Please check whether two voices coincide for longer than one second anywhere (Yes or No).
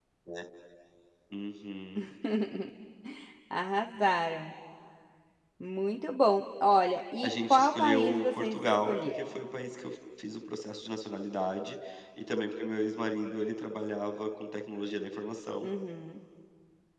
Yes